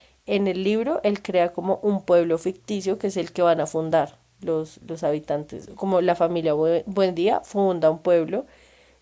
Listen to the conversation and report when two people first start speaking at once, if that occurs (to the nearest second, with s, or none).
none